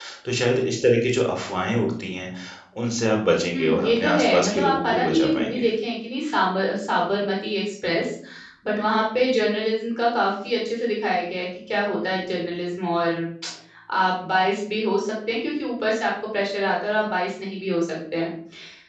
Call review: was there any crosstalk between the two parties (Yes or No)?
Yes